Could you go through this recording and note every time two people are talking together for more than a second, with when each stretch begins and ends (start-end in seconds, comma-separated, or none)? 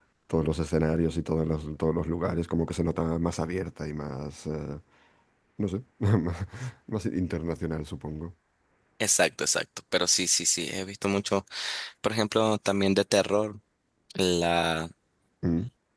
none